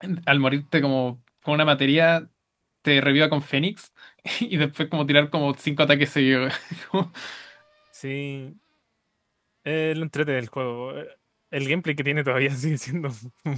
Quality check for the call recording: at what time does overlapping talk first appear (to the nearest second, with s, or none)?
none